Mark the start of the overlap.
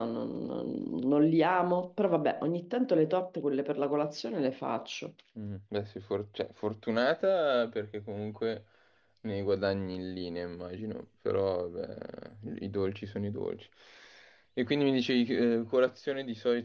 none

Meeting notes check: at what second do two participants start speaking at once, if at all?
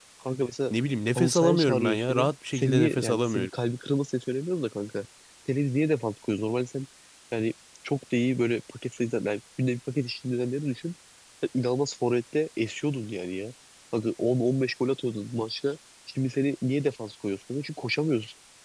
1 s

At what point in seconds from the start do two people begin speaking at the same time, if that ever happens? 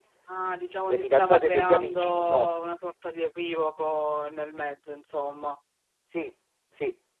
1 s

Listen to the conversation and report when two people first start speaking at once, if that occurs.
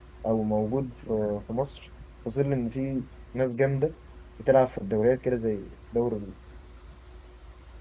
none

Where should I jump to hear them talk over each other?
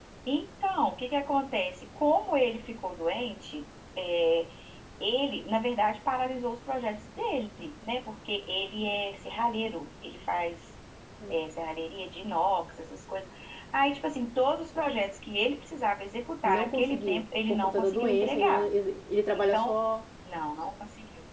16 s

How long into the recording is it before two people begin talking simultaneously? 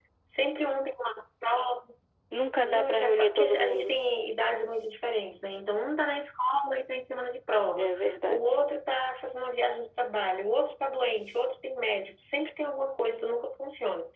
3 s

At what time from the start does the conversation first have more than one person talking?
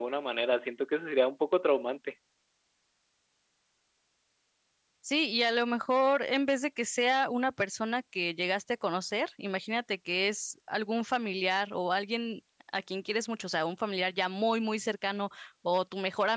none

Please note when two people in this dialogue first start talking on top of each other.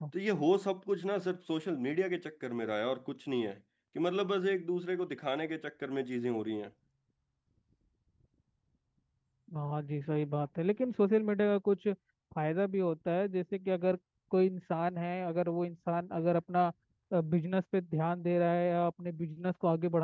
none

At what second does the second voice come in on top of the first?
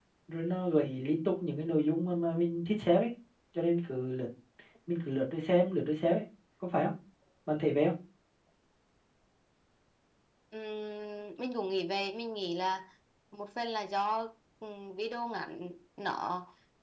none

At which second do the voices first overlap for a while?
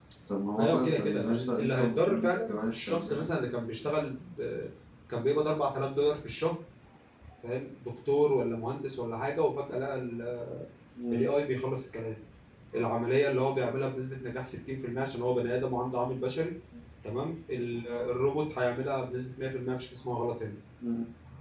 1 s

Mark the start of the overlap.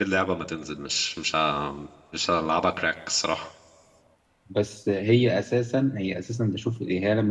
none

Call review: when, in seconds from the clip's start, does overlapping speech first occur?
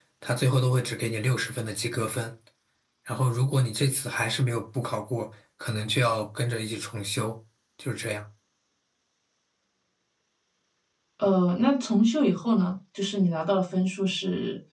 none

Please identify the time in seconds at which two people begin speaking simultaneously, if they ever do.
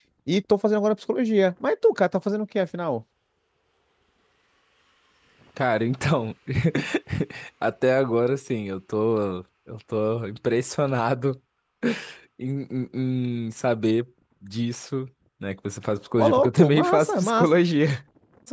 16 s

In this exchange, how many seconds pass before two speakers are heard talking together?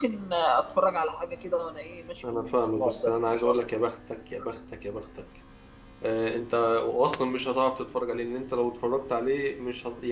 2 s

